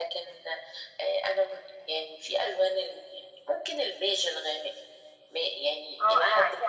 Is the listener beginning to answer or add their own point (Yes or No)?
Yes